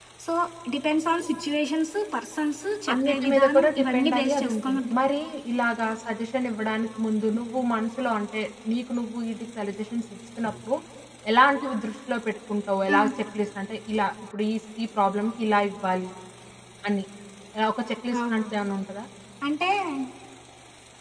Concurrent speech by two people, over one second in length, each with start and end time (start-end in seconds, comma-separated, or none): 2.9-5.0